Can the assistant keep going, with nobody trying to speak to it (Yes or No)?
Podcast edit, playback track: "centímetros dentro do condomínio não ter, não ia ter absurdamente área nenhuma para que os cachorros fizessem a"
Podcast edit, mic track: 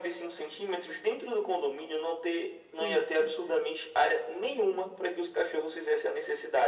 No